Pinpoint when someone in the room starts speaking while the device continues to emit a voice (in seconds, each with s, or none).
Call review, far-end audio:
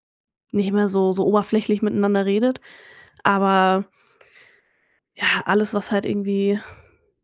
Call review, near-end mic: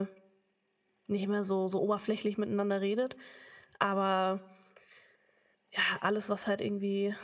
none